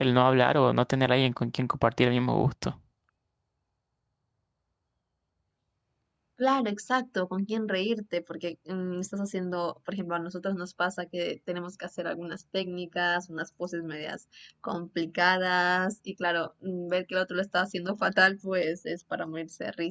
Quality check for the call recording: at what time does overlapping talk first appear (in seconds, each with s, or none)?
none